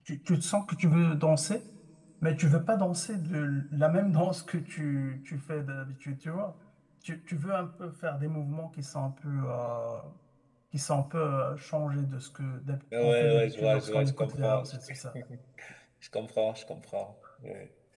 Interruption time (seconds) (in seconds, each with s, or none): 12.9 s